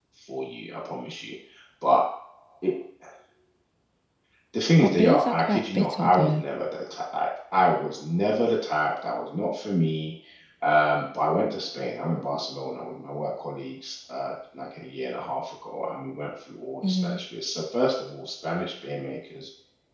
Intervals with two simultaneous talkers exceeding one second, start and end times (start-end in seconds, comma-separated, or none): 4.8-6.4